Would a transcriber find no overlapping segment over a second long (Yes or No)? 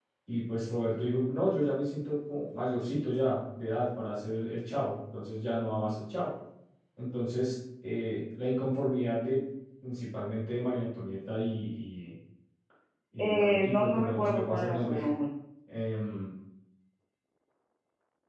No